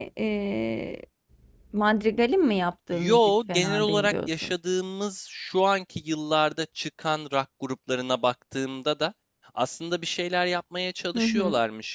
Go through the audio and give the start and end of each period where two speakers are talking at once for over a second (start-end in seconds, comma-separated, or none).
2.9-4.5